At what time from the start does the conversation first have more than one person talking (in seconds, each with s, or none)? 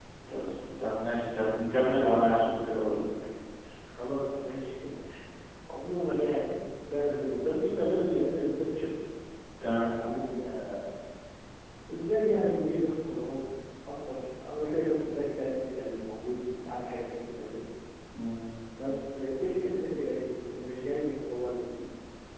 none